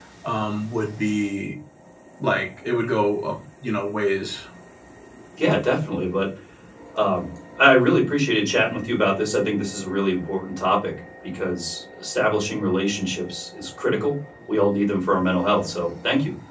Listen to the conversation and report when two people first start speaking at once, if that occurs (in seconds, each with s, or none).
none